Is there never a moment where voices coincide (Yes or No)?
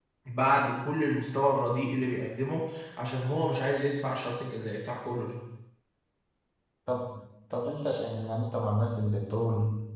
Yes